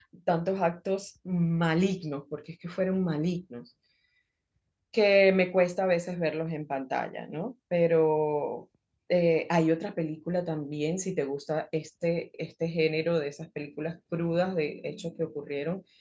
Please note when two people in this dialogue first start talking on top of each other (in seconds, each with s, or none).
none